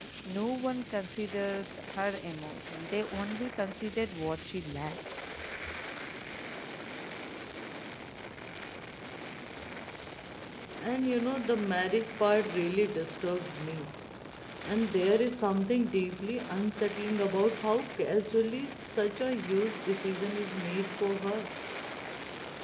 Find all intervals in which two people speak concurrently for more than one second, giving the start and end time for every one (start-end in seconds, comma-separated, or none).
none